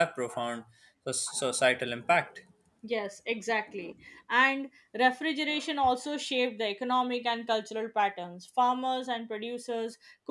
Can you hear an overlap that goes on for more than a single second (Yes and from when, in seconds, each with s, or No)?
No